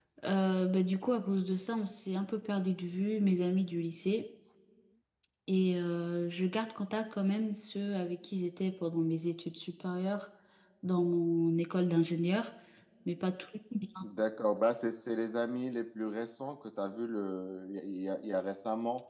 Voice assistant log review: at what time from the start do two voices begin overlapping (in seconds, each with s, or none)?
none